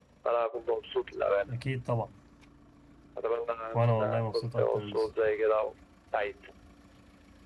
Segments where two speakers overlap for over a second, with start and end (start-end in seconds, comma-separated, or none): 3.7-5.0